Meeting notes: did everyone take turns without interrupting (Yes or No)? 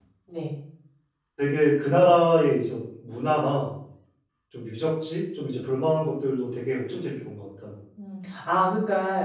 Yes